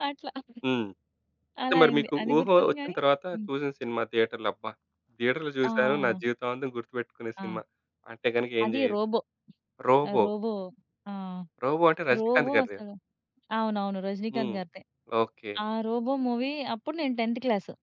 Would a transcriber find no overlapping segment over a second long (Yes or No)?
No